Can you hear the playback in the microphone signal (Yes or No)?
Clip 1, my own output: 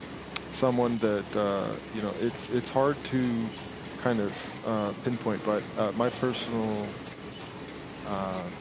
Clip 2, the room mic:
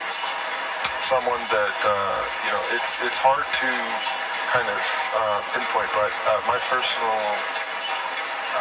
Yes